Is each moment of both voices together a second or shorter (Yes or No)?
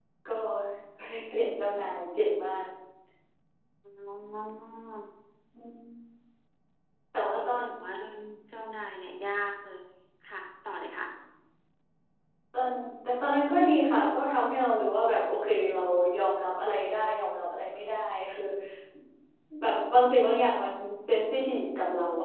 Yes